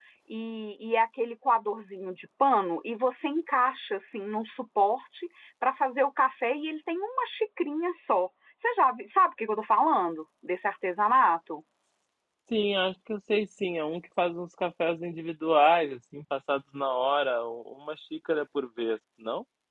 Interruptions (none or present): none